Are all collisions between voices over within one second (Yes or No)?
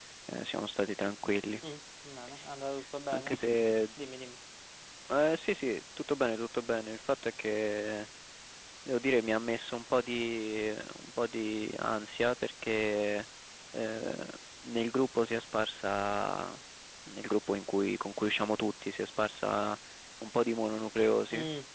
Yes